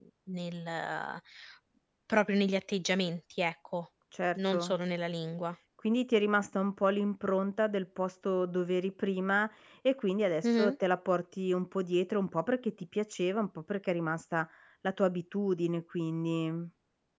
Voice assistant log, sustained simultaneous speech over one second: none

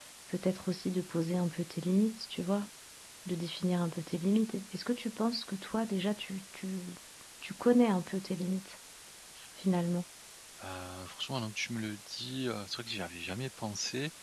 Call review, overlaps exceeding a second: none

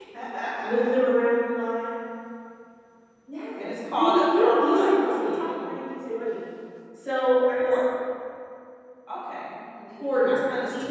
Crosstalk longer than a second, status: present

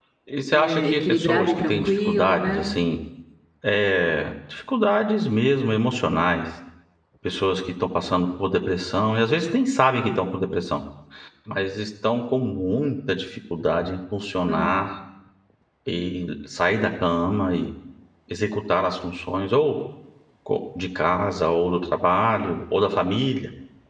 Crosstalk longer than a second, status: present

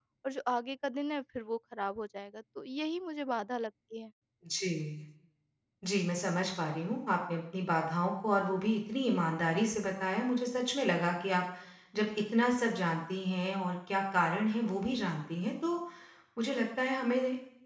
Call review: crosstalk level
none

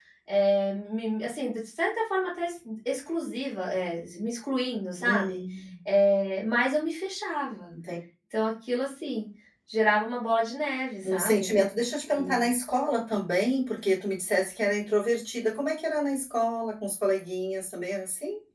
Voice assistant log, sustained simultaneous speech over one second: none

